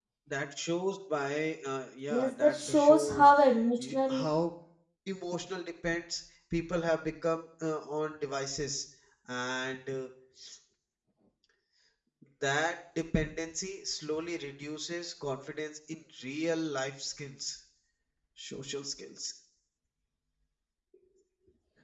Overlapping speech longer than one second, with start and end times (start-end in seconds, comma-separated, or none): 2.1-3.3